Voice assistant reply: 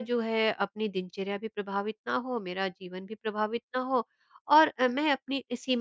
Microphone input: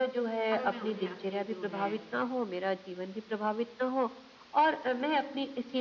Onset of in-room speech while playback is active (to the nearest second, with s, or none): 1 s